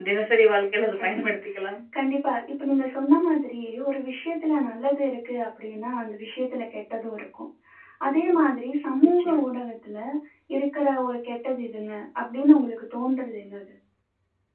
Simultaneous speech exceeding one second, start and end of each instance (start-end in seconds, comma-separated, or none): none